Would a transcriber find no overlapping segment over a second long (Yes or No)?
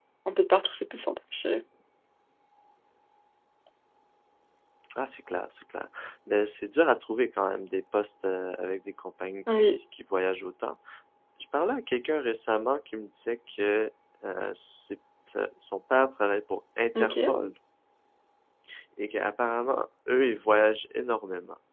Yes